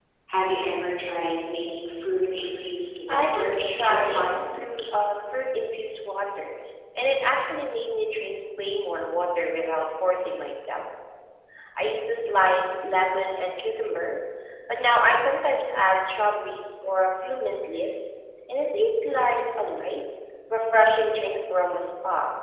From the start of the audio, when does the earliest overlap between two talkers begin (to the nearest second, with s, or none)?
3 s